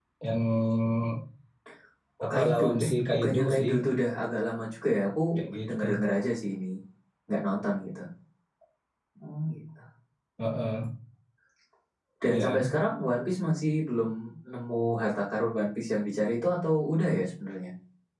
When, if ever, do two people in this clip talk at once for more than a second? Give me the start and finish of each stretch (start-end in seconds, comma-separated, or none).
2.2-3.7